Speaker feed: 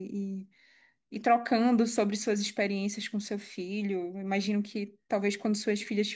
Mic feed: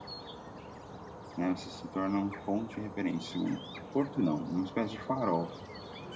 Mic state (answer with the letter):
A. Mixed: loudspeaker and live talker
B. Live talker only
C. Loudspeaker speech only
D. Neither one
B